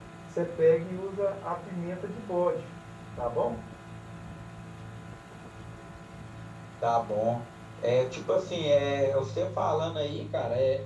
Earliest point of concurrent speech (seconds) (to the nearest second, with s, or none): none